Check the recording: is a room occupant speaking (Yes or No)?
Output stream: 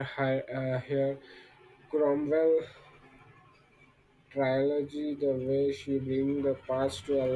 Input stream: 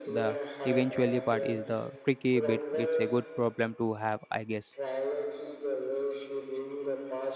Yes